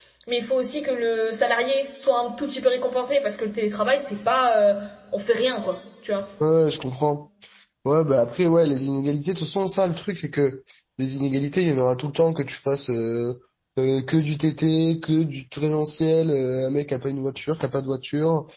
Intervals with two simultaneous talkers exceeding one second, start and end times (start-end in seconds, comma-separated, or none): none